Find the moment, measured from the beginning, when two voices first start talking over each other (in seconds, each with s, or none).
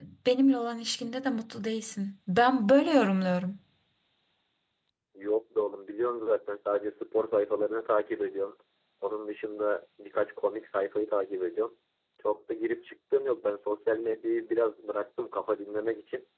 none